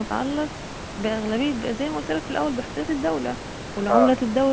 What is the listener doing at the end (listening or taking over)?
listening